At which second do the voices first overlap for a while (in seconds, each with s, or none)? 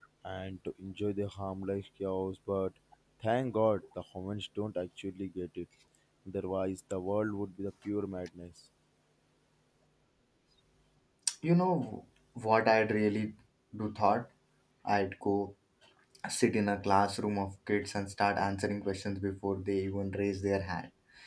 none